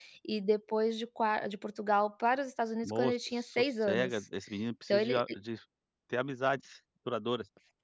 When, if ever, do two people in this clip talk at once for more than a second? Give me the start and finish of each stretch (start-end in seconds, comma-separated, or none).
2.8-4.2